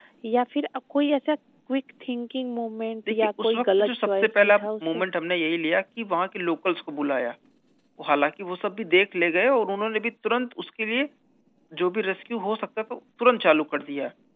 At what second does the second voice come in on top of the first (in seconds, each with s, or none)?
3.1 s